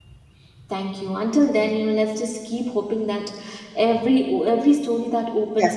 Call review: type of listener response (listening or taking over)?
listening